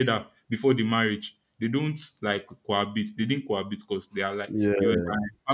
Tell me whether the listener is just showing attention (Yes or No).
Yes